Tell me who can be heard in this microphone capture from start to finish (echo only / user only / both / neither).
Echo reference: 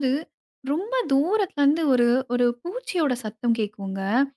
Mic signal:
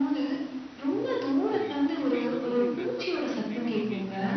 both